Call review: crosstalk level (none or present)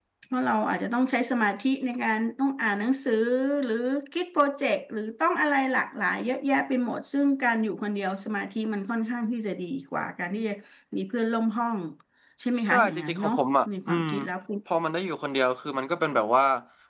present